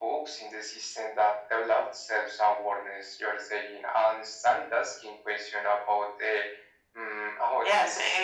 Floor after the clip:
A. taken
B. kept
A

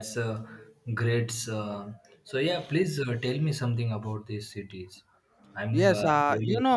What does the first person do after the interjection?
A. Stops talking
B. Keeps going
A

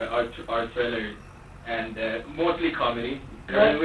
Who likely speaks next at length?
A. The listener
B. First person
B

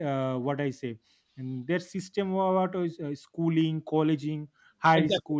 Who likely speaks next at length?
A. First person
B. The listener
A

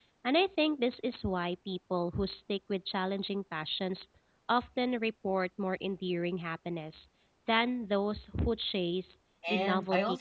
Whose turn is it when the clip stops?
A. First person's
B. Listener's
B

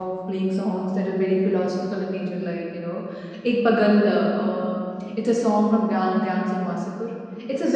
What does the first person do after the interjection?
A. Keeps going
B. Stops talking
A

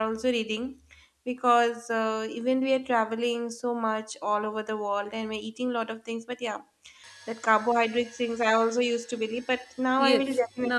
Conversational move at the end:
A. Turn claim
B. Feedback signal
A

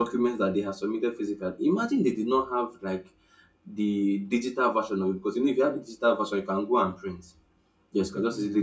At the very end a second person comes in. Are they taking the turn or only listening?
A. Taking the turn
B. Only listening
B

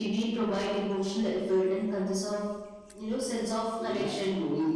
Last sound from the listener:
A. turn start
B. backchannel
A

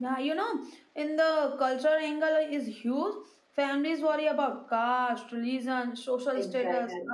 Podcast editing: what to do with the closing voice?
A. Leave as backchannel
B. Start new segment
A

